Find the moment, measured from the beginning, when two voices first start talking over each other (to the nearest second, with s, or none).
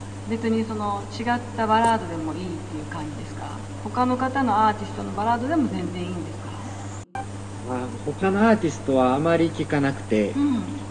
none